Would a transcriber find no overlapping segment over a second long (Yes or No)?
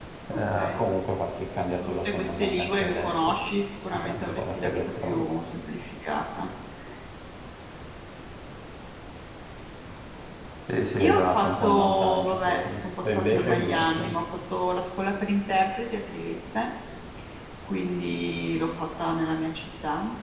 No